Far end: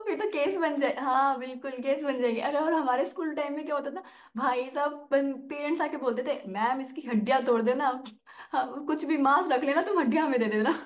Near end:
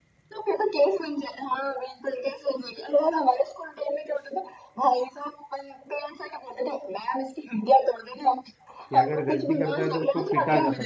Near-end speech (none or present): present